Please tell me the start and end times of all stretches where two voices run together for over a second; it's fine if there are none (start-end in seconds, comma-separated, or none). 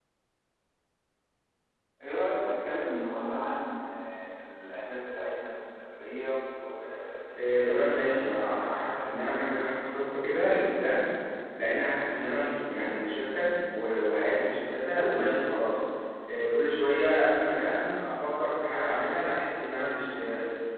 7.3-9.3